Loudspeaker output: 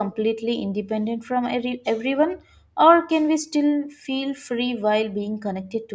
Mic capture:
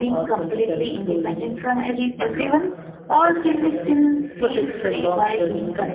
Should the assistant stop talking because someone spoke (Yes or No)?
Yes